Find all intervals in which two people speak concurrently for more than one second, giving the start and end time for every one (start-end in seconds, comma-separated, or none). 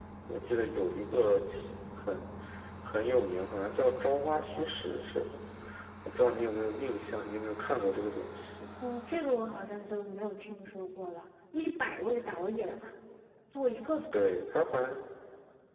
none